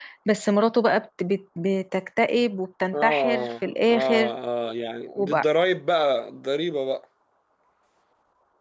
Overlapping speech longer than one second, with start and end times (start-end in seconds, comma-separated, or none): 2.9-4.3